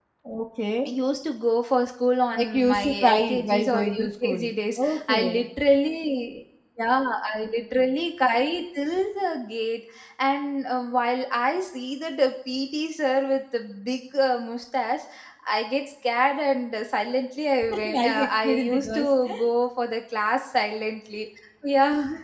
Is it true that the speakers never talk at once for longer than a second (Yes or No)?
No